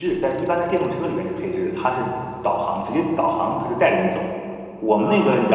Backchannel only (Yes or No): No